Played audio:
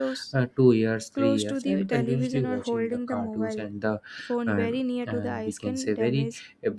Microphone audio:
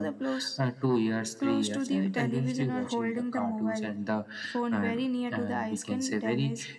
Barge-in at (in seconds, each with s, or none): none